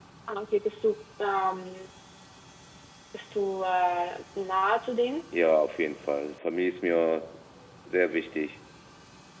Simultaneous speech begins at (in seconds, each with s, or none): none